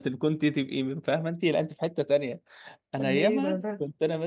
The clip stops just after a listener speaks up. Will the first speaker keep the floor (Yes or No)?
Yes